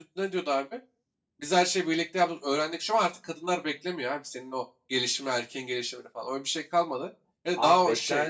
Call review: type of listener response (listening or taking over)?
taking over